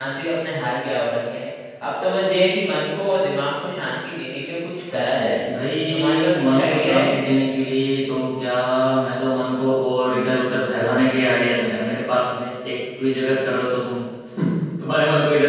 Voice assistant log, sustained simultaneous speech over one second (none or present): present